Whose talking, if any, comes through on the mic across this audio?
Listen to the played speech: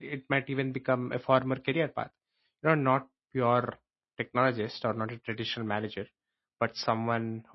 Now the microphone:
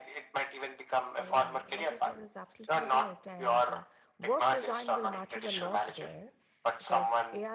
both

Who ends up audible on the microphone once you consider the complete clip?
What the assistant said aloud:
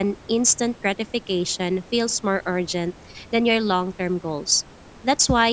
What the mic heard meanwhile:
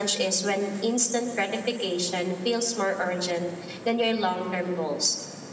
echo only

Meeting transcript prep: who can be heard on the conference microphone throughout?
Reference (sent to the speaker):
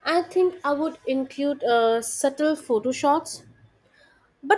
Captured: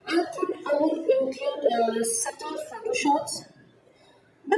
echo only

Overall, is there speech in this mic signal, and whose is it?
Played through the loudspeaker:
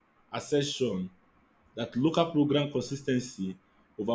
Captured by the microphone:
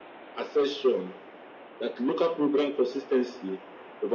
echo only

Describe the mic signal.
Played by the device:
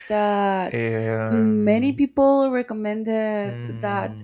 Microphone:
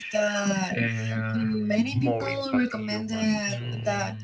both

